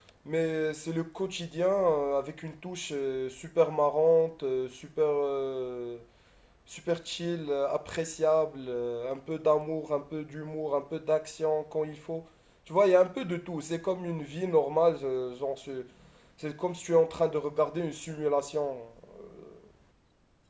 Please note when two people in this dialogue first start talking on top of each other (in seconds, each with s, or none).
none